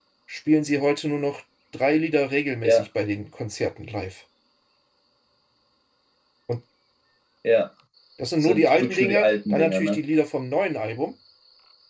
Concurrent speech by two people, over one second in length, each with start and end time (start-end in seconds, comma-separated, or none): 8.4-10.0